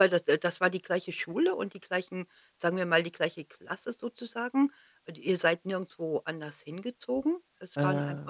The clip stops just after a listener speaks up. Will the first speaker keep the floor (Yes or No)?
Yes